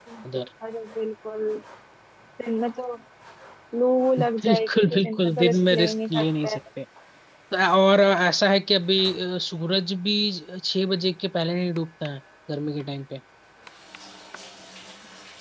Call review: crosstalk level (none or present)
present